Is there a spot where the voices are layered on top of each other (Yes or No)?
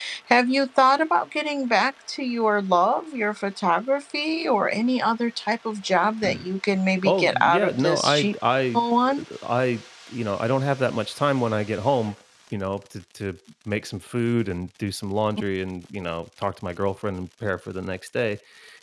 Yes